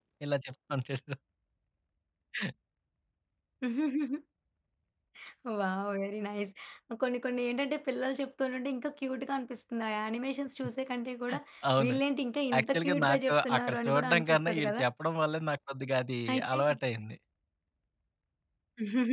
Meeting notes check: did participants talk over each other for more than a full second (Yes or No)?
Yes